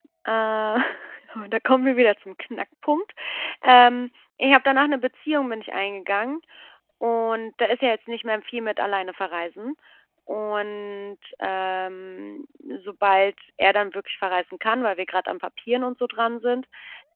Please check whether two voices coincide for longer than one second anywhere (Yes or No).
No